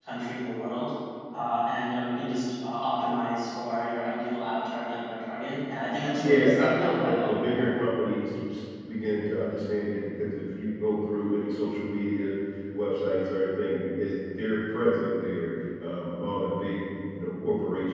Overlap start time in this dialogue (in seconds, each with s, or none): 6.2 s